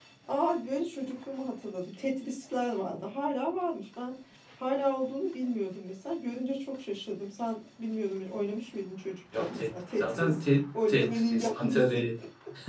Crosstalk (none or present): present